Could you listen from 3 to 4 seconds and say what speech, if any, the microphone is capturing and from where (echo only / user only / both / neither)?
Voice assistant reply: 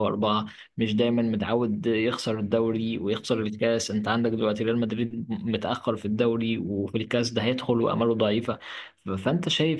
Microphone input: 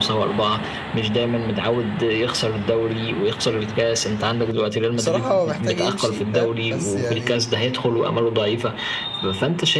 echo only